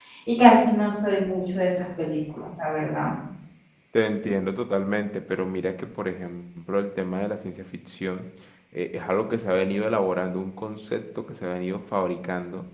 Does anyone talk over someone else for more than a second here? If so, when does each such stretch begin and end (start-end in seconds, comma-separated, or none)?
none